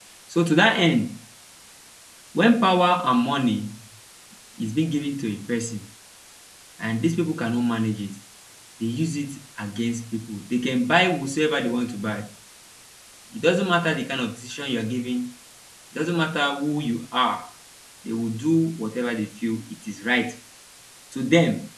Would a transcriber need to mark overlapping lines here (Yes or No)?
No